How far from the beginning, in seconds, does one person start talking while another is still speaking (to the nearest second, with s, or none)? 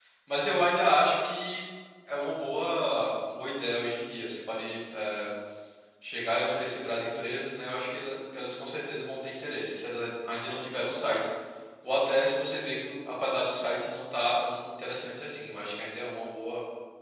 none